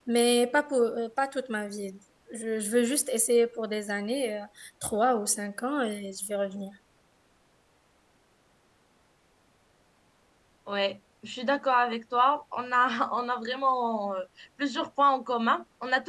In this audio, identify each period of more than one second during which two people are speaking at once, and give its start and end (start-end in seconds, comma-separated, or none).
none